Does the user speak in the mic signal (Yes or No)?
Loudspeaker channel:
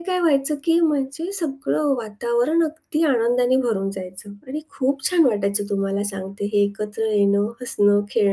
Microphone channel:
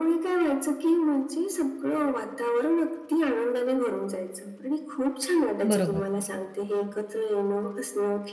Yes